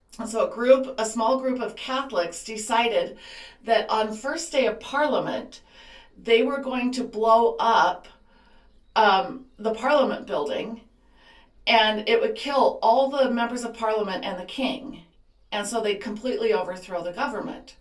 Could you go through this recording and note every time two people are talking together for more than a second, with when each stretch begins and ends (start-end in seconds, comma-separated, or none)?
none